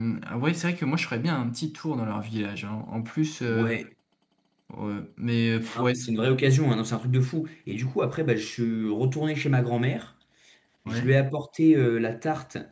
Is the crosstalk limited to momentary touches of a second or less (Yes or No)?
Yes